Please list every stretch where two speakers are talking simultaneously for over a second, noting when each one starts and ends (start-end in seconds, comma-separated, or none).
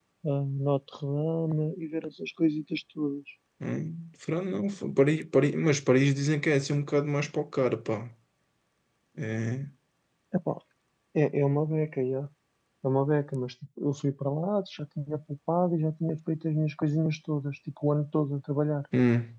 none